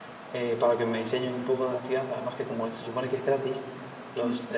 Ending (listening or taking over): listening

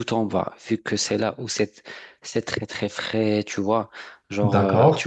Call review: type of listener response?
listening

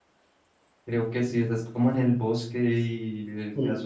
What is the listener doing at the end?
listening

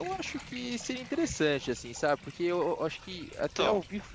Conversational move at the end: listening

